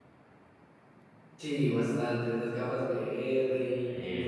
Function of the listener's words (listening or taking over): listening